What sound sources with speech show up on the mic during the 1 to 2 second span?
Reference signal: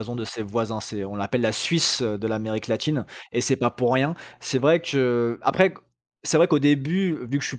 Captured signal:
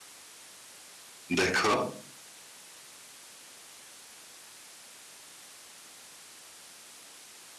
user only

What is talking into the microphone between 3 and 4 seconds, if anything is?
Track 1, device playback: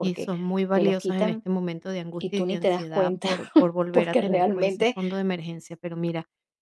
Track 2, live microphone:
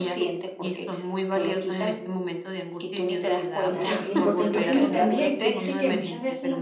both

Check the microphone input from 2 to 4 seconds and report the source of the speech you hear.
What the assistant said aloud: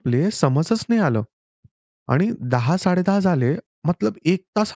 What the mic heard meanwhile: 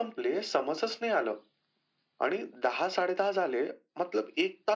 echo only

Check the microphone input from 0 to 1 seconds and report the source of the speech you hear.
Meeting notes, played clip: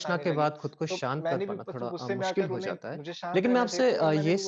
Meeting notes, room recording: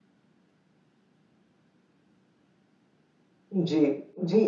neither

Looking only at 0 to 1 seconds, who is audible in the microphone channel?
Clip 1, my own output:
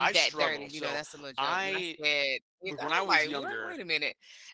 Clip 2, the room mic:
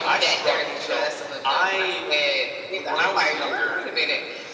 echo only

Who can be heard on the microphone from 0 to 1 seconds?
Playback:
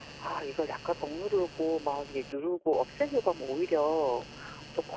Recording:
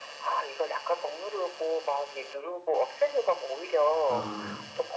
echo only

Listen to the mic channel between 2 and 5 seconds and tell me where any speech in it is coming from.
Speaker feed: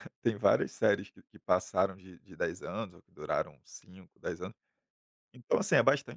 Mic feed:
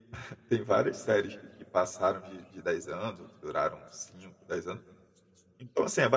echo only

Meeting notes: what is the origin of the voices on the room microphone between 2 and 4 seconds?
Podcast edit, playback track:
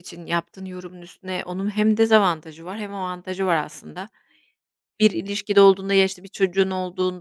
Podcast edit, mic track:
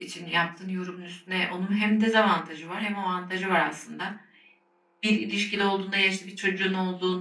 echo only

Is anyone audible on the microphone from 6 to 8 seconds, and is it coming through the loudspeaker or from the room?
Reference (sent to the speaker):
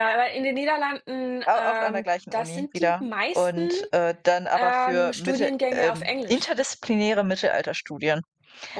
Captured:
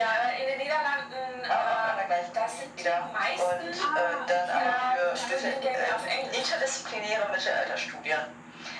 both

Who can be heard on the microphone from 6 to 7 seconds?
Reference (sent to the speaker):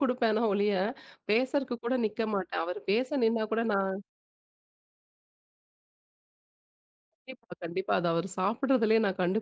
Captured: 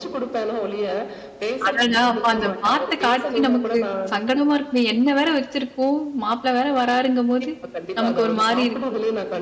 user only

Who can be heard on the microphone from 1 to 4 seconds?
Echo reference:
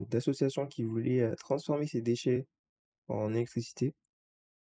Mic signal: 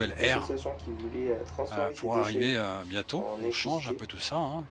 both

